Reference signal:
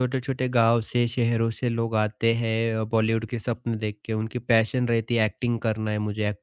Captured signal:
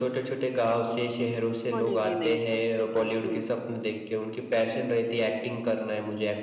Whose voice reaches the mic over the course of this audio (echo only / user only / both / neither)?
both